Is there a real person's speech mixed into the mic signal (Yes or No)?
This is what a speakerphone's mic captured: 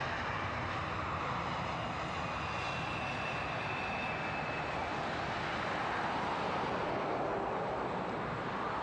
No